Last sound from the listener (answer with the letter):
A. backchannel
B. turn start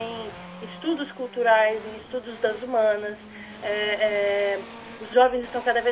A